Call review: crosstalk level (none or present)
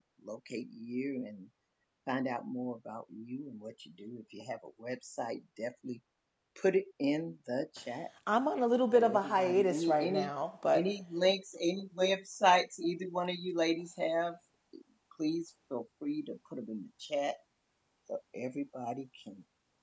present